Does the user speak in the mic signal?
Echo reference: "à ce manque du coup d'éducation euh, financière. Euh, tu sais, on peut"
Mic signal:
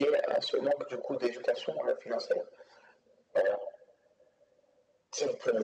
No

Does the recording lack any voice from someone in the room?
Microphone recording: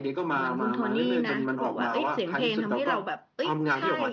No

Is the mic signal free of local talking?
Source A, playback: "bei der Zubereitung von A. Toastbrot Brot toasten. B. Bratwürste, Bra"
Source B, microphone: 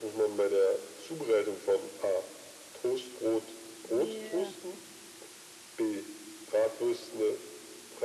No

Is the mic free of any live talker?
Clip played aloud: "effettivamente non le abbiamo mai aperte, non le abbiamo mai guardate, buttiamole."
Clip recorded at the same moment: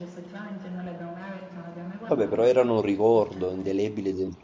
No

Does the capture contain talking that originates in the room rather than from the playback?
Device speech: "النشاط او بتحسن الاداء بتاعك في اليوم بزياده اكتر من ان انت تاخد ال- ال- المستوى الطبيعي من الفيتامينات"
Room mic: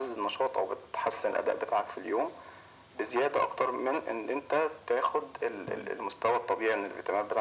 Yes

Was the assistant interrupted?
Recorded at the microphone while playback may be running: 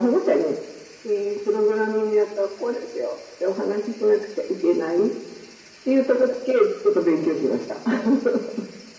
No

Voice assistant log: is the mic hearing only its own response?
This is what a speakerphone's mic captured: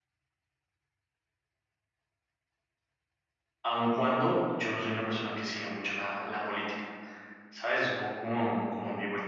No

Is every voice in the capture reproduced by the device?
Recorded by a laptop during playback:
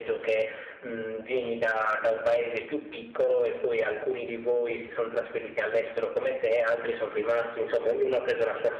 Yes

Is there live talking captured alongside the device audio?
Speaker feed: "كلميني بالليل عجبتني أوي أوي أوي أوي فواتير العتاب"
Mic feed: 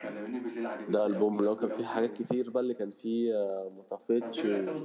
Yes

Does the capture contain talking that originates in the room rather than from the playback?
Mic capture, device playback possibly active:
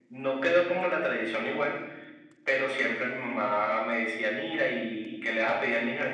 No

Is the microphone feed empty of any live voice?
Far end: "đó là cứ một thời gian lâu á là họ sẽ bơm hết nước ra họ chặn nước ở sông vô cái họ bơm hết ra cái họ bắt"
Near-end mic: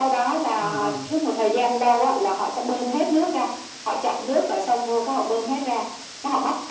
No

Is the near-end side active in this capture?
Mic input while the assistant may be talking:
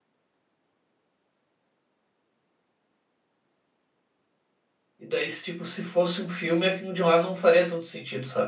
Yes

